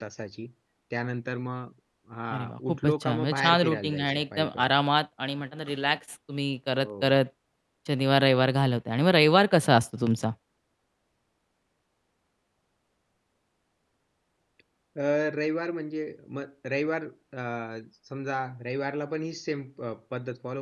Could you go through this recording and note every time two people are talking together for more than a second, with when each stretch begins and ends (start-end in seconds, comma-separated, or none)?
2.3-4.7